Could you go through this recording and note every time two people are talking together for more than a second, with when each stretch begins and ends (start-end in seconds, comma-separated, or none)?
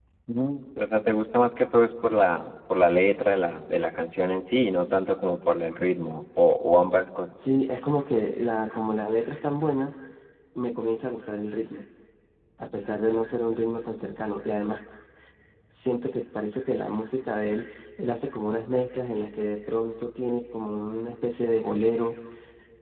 none